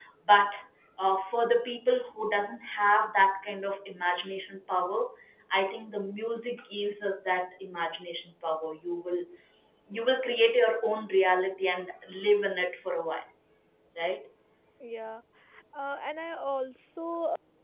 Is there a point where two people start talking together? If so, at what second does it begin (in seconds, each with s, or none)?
none